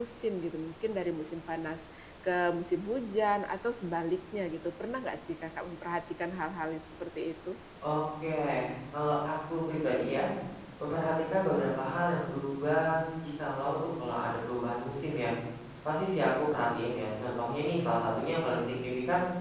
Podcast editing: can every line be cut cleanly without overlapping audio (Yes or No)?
Yes